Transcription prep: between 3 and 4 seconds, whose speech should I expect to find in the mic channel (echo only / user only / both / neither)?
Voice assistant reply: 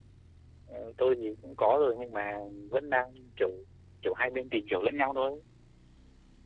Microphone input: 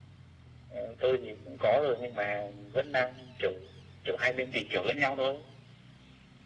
echo only